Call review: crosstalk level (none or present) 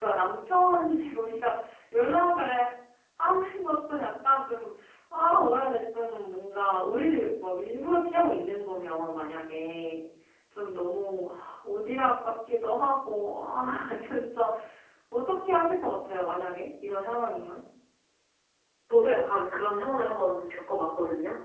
none